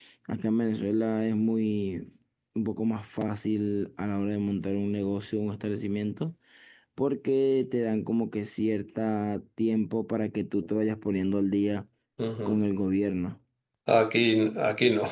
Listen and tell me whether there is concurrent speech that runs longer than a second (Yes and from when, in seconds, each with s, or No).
No